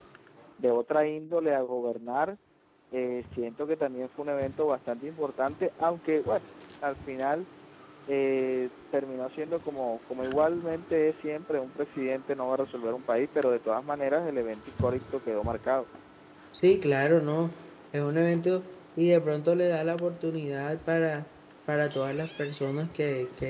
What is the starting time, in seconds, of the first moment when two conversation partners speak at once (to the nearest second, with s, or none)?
none